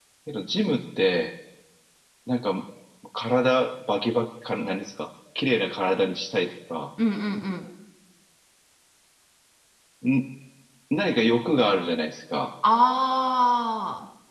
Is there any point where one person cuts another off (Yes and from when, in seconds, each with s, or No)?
No